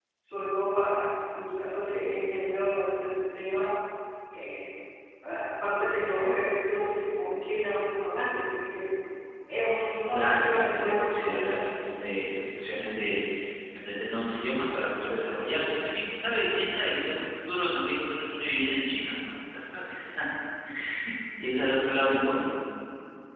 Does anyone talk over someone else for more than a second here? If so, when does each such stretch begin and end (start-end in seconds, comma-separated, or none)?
10.1-11.6